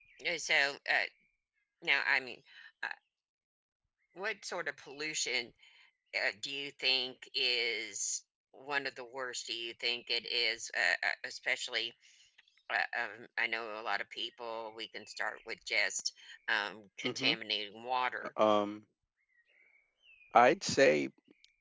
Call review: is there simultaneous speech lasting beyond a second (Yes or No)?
No